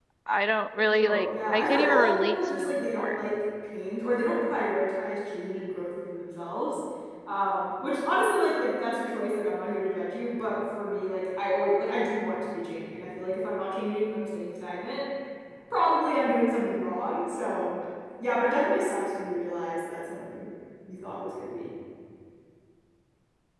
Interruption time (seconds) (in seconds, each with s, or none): 0.9 s